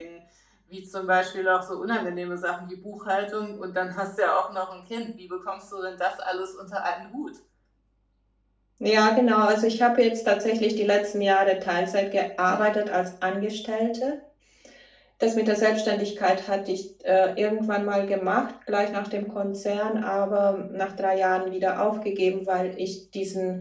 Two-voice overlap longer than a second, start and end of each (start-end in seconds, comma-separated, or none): none